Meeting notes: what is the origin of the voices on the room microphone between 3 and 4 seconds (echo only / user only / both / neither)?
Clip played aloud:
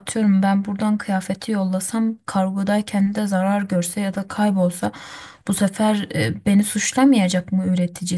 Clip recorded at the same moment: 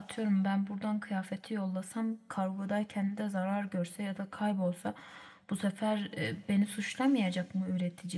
echo only